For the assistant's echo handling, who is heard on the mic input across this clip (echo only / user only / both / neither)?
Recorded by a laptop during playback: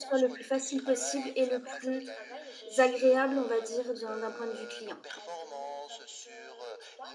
both